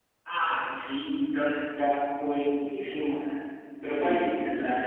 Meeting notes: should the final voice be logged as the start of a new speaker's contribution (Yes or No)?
No